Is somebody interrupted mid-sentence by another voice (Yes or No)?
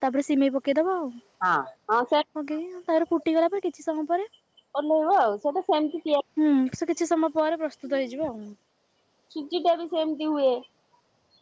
No